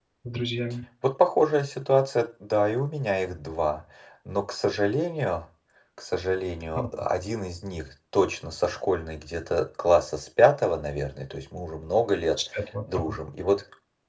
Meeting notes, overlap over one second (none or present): none